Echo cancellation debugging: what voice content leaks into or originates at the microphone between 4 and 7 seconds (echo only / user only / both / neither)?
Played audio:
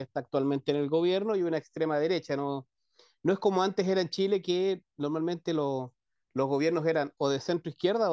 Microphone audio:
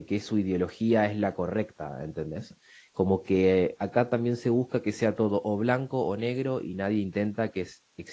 user only